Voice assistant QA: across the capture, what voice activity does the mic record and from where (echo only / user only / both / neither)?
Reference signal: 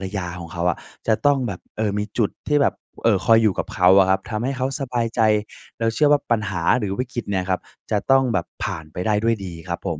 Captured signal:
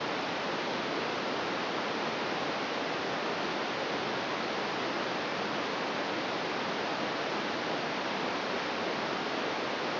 neither